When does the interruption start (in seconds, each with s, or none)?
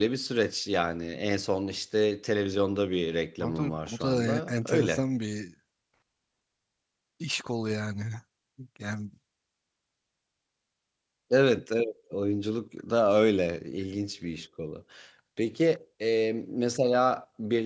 3.4 s